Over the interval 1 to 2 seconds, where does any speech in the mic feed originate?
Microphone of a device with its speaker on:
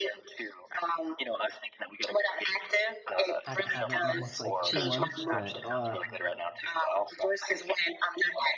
echo only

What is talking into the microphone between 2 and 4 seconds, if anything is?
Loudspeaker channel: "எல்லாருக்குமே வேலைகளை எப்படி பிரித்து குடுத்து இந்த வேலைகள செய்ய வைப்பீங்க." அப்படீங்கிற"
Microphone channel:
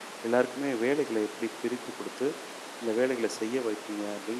echo only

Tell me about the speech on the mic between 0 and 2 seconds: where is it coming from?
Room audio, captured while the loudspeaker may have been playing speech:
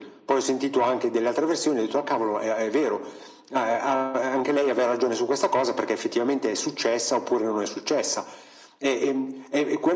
echo only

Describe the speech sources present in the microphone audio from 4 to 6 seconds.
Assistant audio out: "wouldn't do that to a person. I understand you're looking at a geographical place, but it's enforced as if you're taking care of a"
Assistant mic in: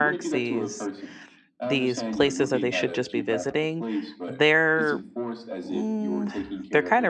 both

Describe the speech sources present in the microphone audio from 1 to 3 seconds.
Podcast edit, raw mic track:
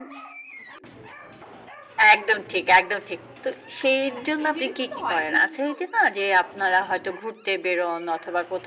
echo only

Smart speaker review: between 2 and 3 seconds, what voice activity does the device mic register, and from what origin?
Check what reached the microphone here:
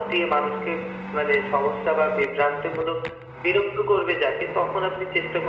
echo only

